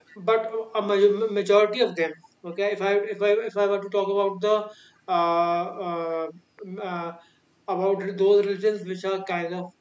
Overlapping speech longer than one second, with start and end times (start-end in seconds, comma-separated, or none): none